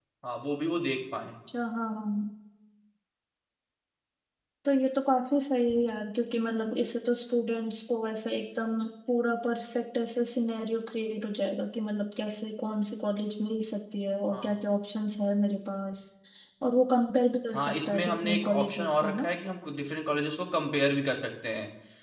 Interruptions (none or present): present